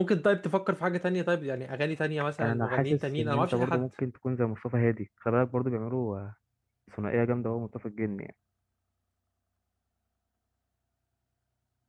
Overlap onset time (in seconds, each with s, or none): 2.4 s